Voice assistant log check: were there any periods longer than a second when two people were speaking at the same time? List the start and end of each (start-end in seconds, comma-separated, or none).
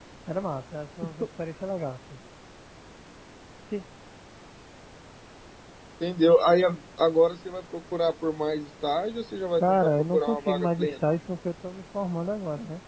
9.6-11.0